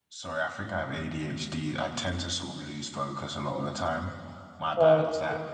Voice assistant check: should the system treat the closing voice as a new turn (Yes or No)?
No